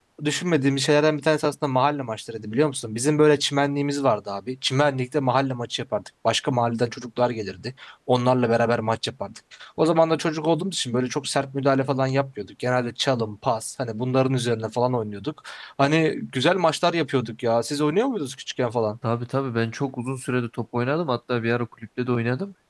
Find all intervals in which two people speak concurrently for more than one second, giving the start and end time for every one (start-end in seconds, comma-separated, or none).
none